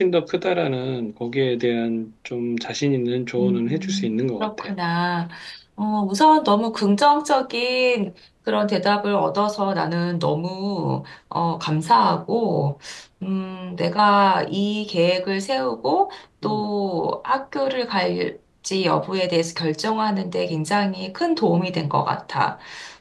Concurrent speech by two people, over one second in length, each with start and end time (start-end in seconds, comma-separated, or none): 3.4-4.7